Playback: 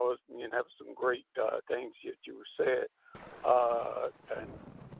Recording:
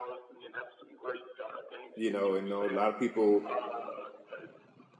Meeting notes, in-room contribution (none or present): present